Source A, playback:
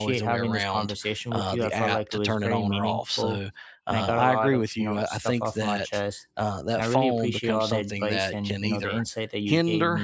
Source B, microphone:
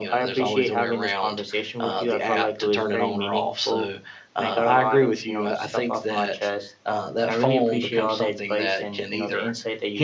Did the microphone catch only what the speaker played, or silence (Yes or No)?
Yes